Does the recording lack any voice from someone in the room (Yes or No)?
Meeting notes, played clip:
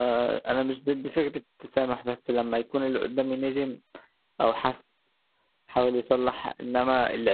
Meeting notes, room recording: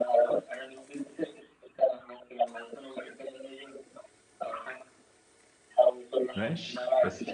No